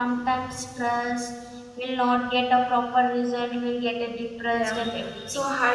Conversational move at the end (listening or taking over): taking over